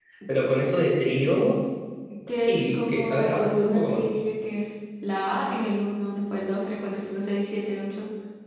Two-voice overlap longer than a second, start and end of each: 2.3-4.0

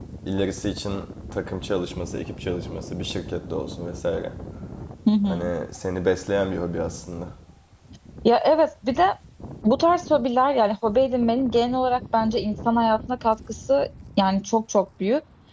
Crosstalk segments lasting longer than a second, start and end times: none

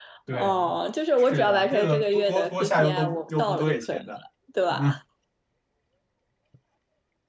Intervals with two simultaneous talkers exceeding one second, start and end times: 1.2-4.0

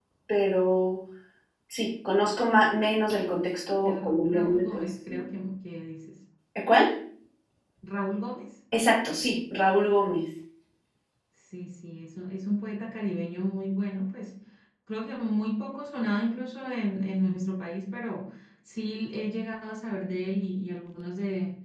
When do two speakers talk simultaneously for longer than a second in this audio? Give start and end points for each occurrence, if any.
3.8-5.2

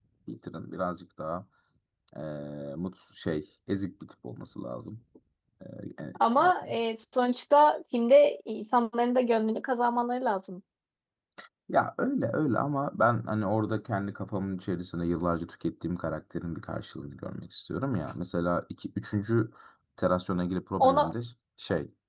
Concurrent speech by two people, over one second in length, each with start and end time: none

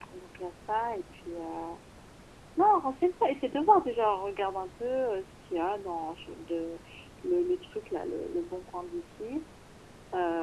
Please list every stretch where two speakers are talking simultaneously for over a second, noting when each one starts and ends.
none

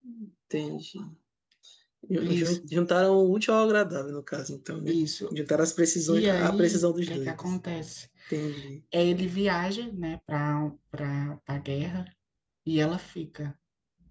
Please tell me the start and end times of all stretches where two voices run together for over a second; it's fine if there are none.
6.1-7.5

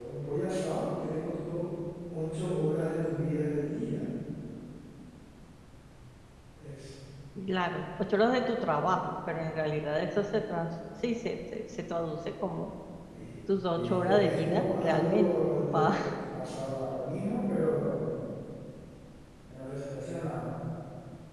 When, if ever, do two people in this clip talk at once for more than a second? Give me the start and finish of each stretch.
13.7-15.9

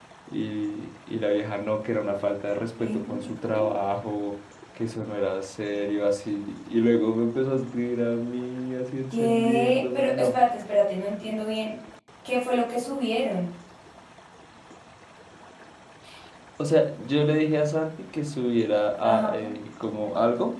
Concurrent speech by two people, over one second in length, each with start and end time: 9.1-10.3

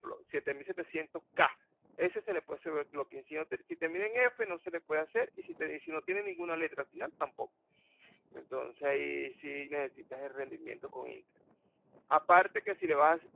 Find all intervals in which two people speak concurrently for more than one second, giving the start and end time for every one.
none

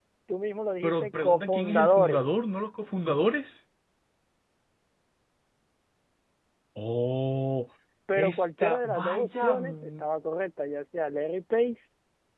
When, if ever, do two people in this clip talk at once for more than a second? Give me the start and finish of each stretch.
0.8-2.2, 8.2-10.0

